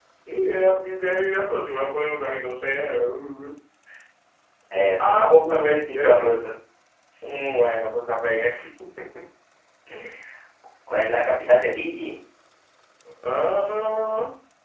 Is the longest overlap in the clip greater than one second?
Yes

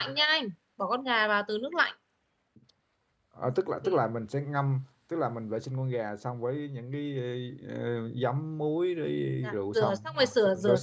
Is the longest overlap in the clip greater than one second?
Yes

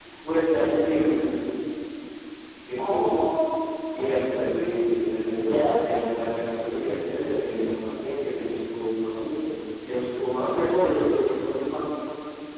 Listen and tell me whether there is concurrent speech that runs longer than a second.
Yes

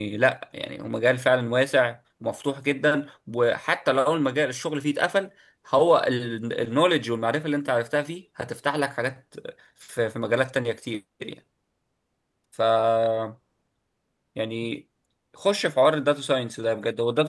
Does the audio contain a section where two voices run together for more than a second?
No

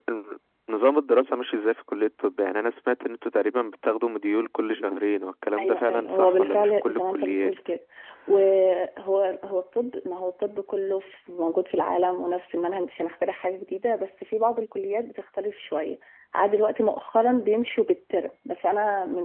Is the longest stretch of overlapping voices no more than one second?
No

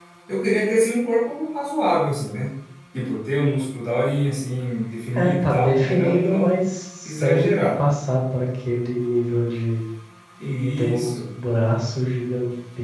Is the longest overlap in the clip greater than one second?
Yes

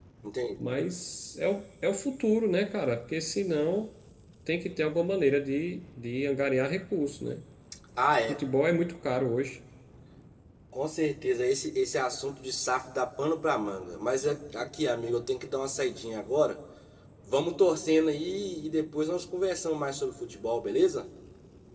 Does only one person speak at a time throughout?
Yes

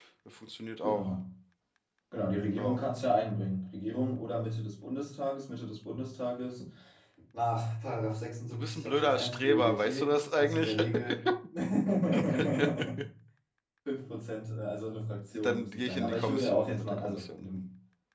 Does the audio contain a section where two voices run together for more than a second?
Yes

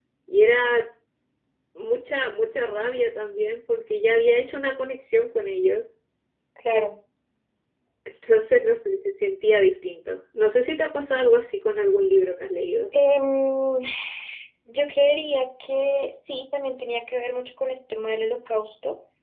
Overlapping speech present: No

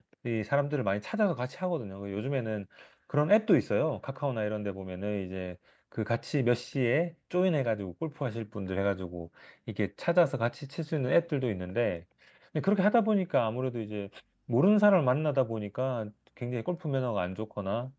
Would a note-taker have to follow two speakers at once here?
No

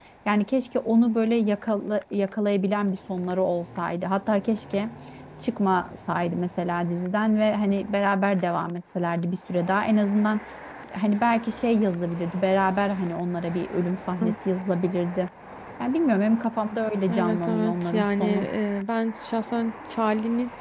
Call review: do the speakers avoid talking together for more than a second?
No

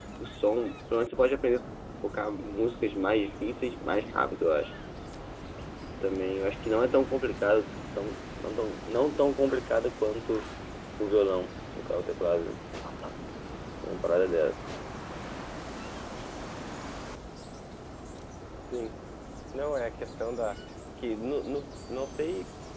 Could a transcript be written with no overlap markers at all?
Yes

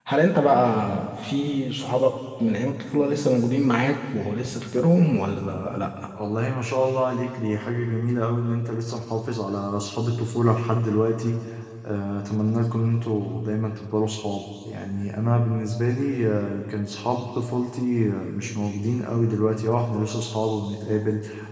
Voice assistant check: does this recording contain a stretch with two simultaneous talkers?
No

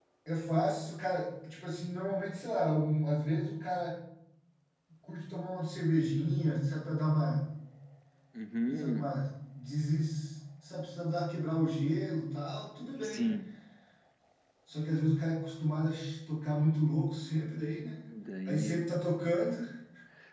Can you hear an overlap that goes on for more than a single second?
No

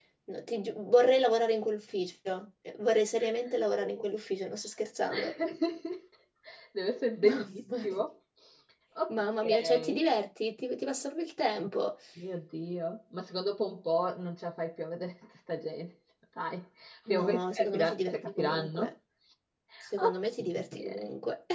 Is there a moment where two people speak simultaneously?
Yes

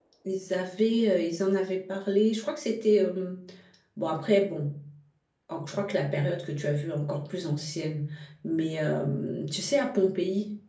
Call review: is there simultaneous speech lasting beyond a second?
No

